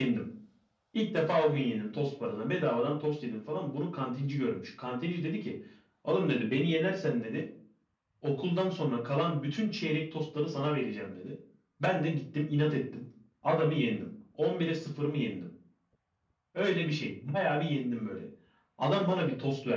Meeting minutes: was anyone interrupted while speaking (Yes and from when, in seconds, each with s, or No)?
No